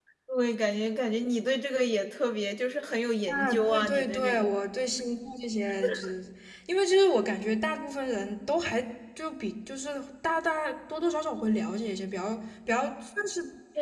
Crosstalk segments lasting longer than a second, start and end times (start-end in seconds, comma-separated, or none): 3.3-4.5